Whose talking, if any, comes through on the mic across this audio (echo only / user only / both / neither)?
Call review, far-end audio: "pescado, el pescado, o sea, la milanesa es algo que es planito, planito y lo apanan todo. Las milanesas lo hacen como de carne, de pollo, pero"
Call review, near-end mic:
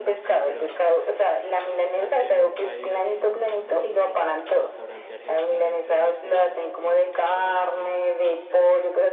both